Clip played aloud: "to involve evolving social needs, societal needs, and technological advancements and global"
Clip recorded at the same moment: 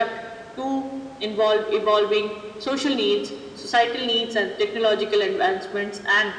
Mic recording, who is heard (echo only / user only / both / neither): echo only